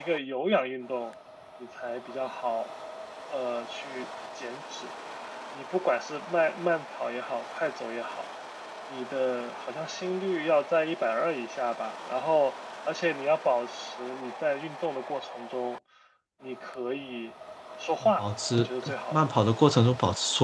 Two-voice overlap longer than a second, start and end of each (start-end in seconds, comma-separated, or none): 18.0-19.2